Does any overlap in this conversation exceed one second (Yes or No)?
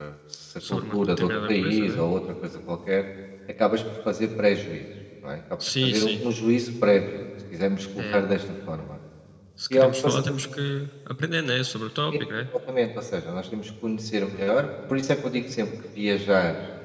Yes